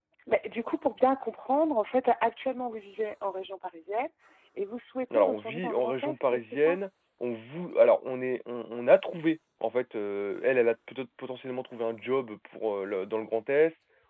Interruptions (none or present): present